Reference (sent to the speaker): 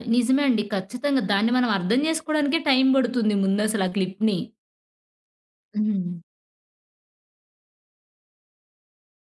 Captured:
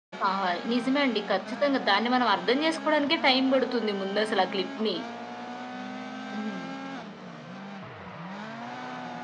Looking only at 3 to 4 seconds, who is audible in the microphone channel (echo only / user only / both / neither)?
echo only